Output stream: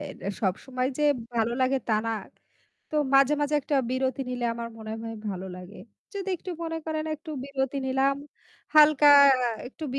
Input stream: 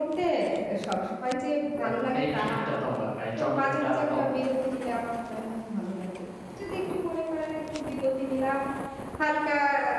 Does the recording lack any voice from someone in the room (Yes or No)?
No